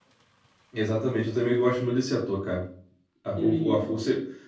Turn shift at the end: No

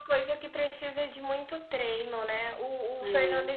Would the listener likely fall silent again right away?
Yes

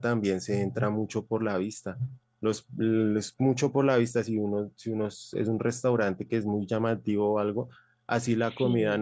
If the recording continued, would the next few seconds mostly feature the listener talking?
No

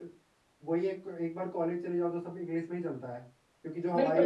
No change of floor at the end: No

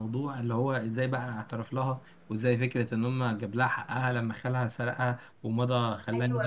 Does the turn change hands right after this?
Yes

